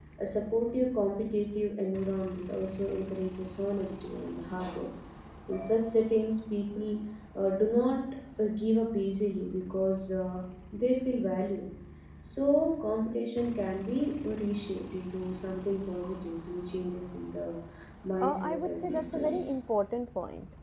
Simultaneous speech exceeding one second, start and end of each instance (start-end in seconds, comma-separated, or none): 18.2-19.5